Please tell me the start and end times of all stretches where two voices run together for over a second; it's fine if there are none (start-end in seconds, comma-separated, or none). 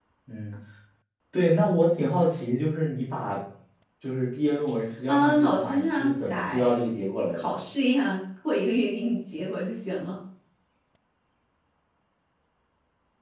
5.1-6.7